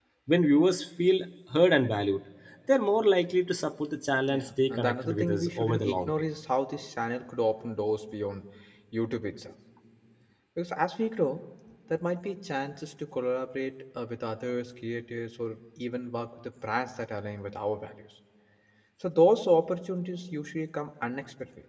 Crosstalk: present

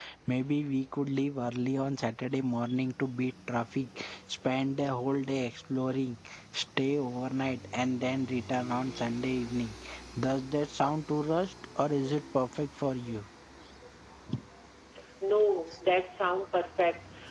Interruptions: none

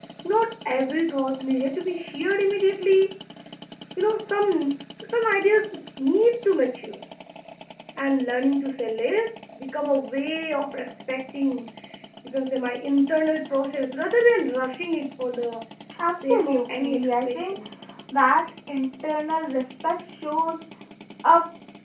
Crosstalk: present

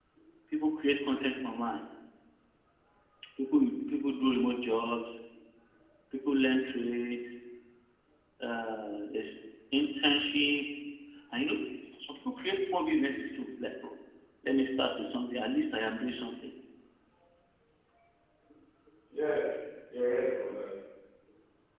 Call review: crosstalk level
none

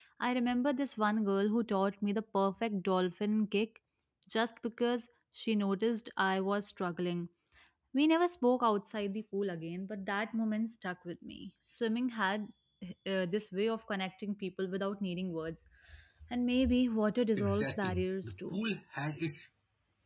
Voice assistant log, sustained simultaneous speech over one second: present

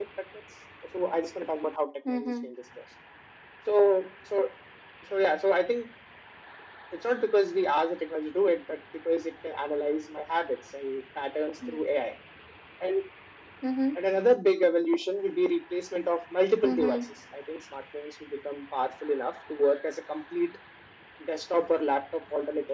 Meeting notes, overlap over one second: none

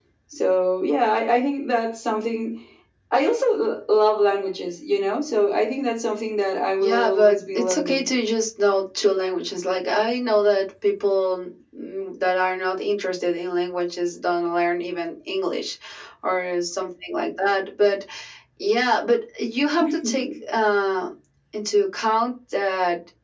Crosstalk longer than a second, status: present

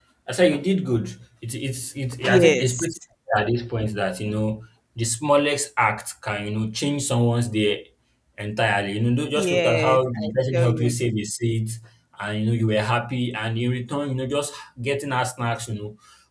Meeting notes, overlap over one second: present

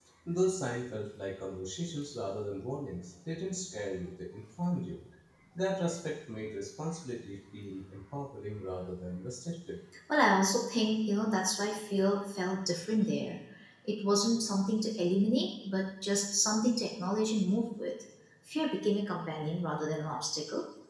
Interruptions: none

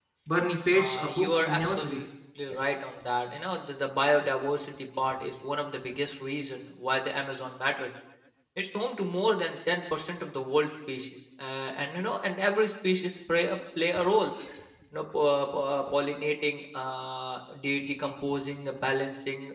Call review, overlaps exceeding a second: present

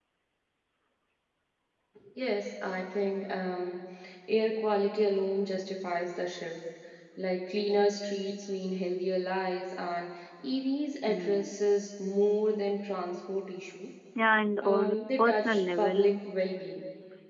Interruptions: present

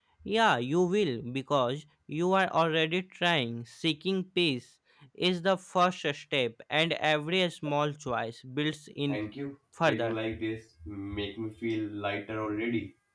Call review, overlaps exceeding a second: none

